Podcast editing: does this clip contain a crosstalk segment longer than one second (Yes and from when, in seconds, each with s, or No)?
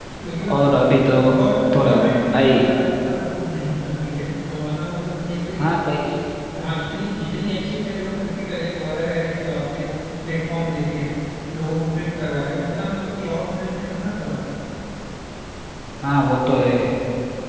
No